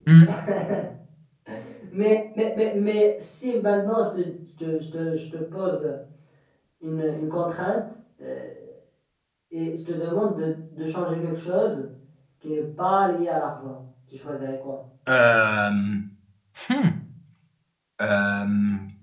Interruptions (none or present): none